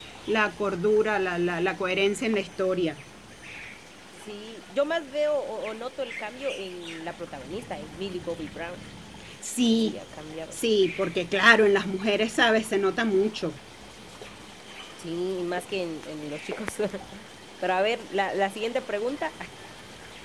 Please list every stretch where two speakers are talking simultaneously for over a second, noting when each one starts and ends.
none

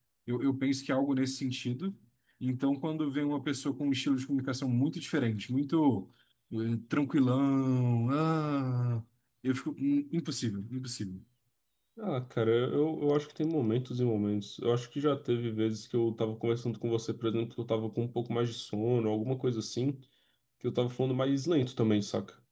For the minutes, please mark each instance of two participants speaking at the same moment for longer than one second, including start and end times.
none

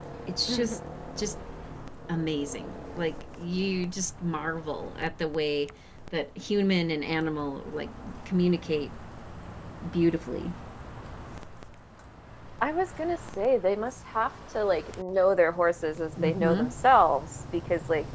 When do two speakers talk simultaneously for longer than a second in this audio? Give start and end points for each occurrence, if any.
none

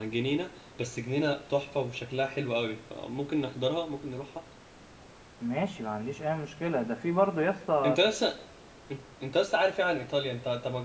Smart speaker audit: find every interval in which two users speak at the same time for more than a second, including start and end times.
none

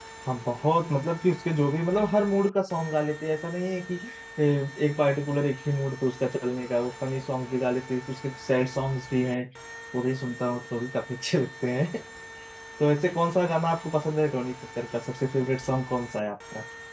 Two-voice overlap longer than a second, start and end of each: none

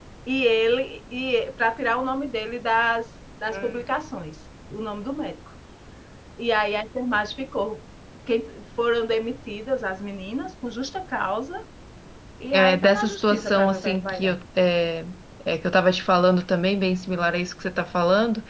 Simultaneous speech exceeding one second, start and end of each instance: 12.5-14.4

